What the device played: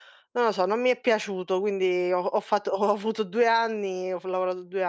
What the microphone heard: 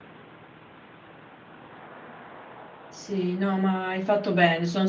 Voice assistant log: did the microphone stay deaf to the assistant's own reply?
Yes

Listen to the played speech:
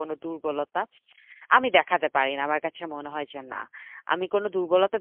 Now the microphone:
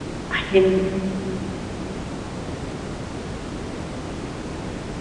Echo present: No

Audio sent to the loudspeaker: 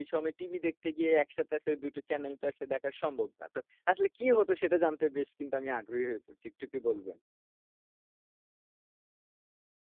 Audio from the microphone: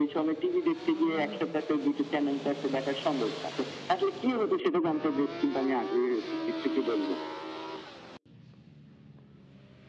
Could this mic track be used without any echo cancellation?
No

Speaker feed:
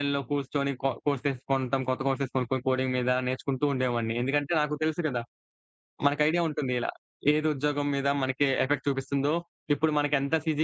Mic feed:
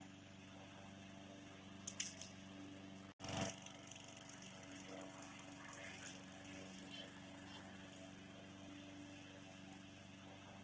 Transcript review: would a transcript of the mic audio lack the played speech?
Yes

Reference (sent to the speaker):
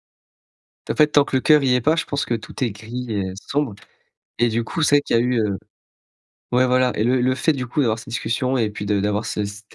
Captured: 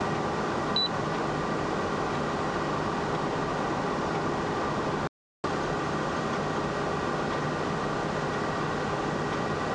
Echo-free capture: Yes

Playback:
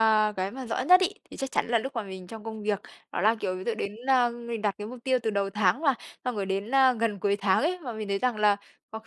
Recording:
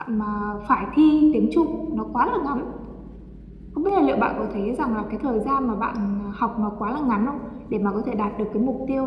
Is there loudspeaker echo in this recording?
No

